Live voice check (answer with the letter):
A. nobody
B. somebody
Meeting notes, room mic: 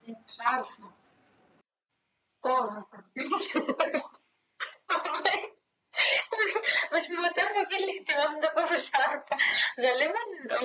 A